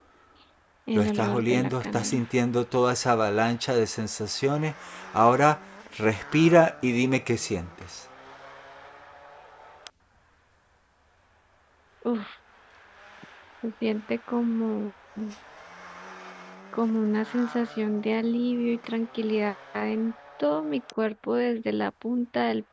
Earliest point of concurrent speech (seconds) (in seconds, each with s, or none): 0.9 s